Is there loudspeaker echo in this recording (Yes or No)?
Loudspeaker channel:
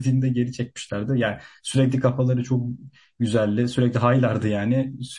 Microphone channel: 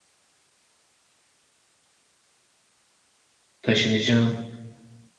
No